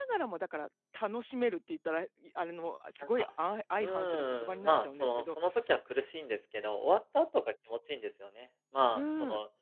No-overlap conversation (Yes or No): No